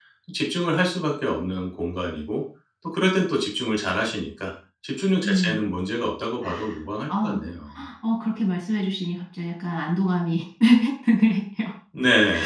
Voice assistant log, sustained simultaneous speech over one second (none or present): none